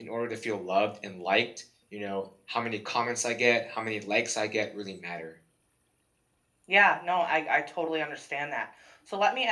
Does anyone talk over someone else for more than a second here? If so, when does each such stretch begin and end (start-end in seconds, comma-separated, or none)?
none